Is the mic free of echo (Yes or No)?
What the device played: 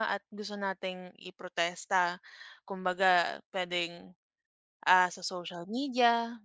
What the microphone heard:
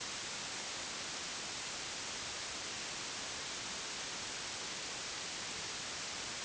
Yes